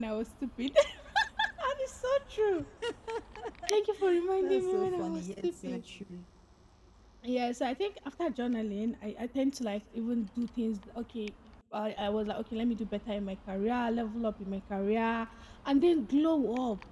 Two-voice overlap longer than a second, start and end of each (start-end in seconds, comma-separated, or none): 4.4-5.8